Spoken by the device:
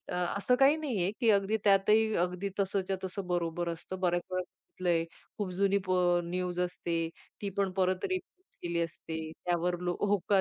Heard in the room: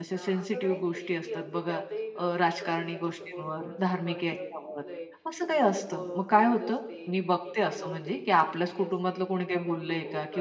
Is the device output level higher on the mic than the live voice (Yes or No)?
No